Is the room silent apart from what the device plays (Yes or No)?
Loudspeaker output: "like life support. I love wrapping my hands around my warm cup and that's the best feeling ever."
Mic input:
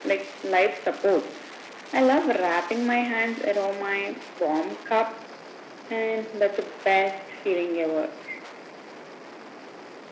Yes